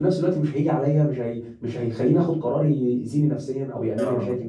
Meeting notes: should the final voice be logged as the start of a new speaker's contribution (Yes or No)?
Yes